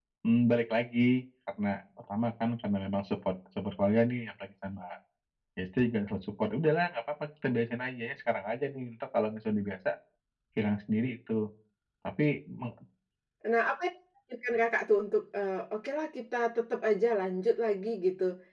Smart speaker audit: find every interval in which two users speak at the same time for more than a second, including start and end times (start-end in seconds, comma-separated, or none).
none